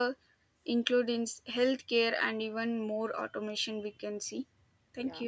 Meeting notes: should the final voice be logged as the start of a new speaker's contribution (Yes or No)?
Yes